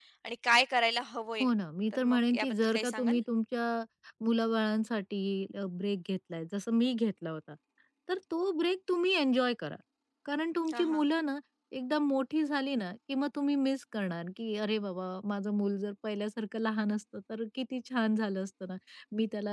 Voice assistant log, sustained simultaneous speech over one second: present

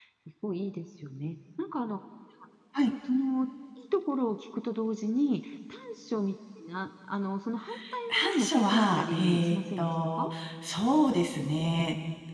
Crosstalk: present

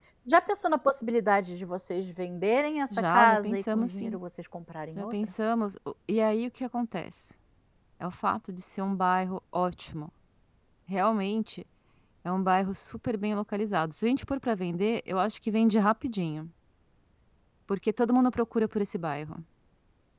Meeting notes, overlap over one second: present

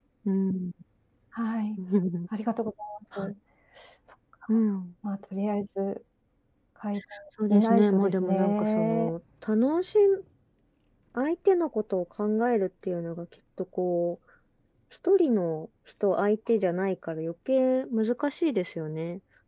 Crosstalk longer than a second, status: present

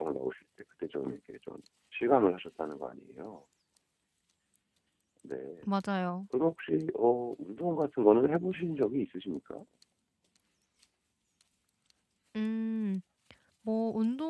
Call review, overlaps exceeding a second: none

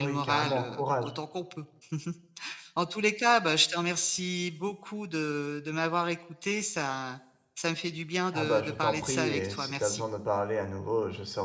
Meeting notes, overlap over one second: present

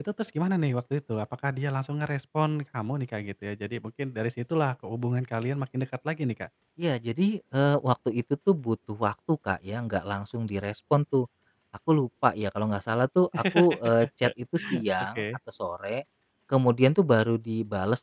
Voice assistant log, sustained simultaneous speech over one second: none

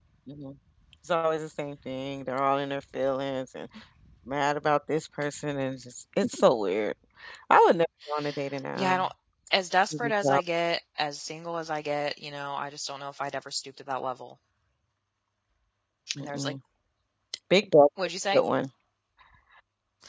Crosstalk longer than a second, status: none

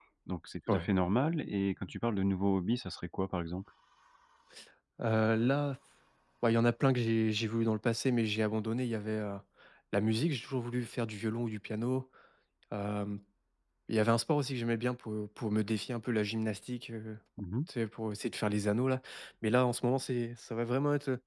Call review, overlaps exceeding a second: none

